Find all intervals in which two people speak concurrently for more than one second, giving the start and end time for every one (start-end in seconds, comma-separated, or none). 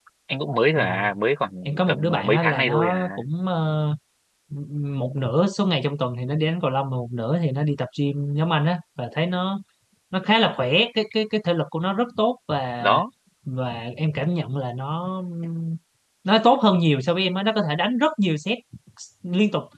1.6-3.1